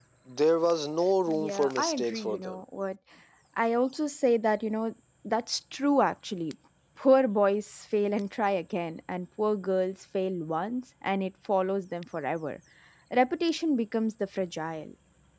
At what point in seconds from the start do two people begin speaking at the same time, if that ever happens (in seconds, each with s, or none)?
1.3 s